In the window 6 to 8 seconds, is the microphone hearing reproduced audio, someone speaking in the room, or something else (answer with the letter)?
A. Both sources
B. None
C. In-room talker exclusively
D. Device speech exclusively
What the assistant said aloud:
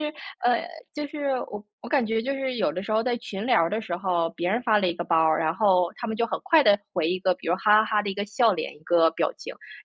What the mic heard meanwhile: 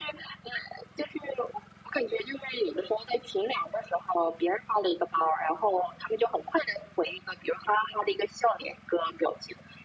D